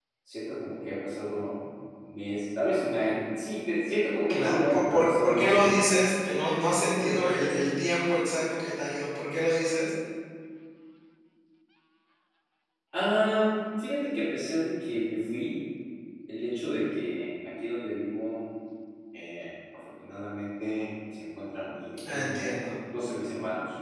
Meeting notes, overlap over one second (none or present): present